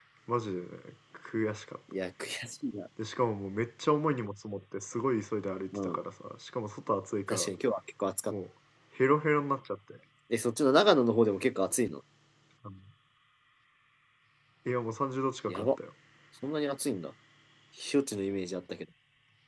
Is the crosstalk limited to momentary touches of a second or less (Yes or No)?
Yes